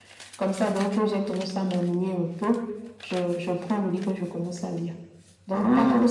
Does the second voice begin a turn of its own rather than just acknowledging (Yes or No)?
No